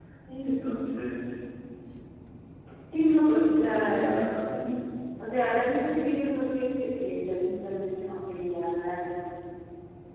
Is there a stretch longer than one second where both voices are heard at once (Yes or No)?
No